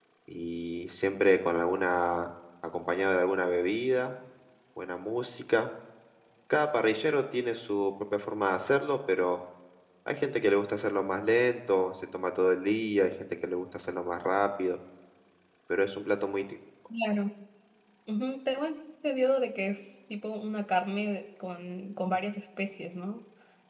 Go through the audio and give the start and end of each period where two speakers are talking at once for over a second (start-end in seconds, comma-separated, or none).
none